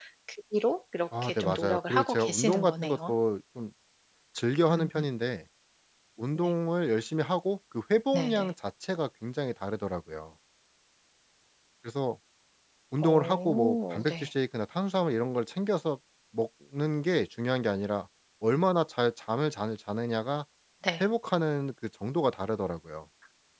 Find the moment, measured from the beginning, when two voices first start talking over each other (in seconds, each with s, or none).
1.2 s